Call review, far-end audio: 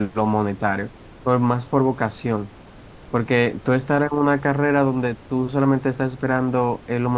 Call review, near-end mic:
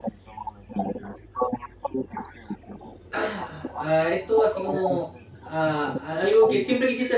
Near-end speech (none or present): present